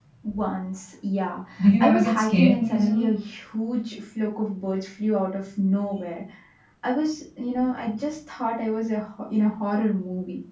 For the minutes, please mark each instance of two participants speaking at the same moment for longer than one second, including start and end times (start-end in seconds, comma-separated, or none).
1.8-3.1